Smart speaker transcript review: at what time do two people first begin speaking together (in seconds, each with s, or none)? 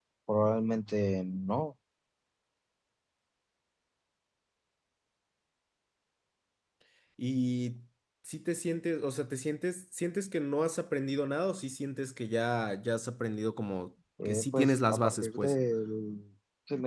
14.2 s